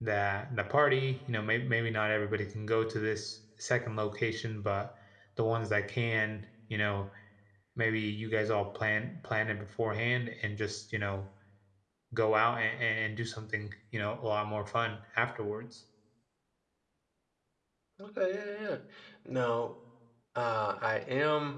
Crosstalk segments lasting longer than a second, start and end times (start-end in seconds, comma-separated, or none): none